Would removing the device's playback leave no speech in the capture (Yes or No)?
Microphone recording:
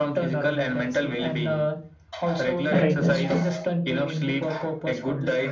No